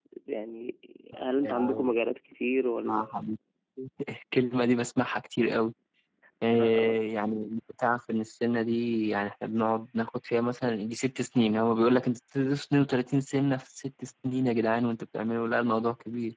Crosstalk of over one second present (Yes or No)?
No